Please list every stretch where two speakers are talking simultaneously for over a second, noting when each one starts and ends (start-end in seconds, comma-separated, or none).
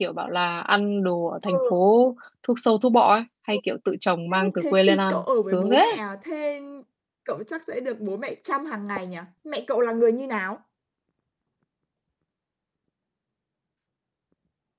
4.3-5.8